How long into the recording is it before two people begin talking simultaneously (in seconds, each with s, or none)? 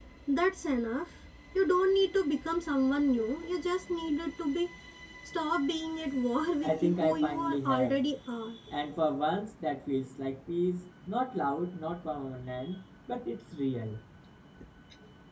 6.6 s